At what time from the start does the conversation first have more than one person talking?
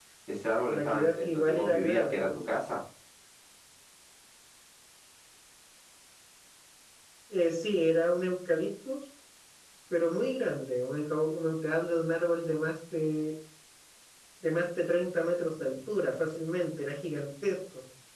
1 s

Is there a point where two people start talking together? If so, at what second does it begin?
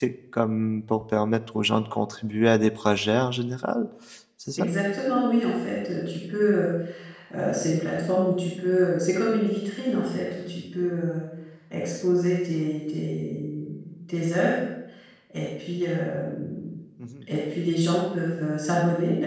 none

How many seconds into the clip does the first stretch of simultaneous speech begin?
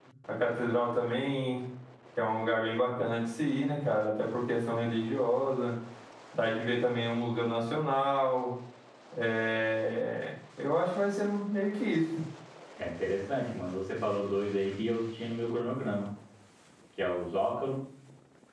none

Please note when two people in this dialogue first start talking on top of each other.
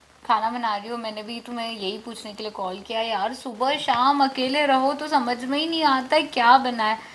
none

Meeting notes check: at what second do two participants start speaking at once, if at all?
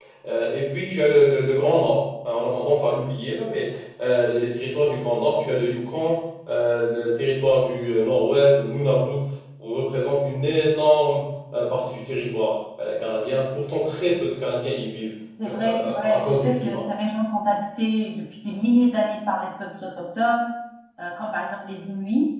15 s

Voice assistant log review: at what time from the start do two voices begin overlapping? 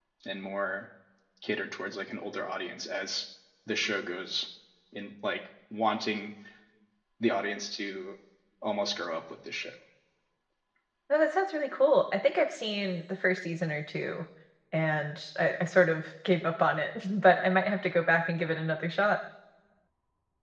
none

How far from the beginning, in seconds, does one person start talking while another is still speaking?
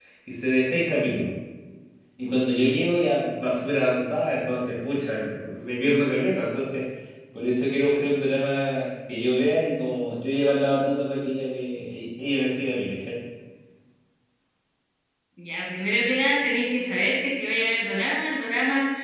none

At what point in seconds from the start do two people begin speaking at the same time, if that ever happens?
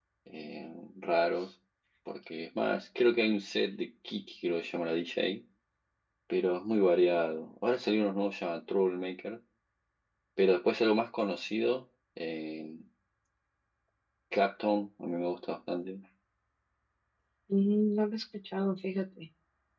none

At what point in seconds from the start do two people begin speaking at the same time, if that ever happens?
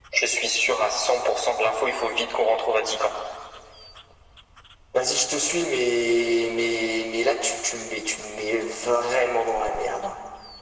none

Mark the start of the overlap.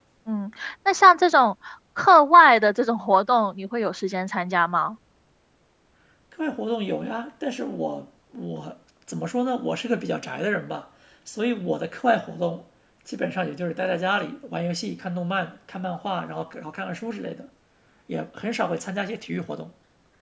none

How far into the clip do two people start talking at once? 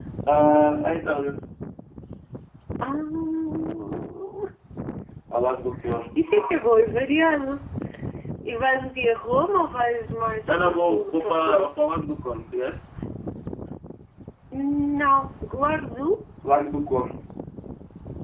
10 s

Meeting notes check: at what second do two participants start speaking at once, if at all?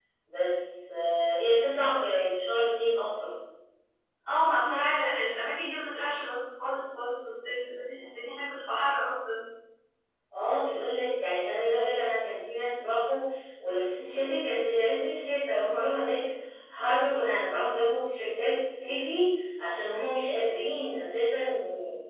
none

